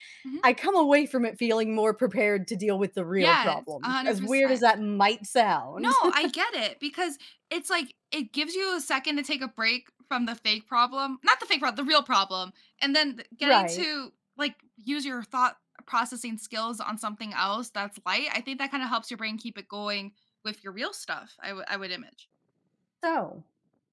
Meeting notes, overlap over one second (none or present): present